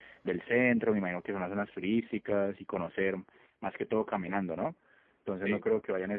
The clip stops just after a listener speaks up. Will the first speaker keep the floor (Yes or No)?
Yes